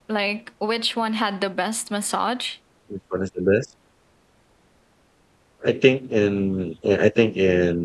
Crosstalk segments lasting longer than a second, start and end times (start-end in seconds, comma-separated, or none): none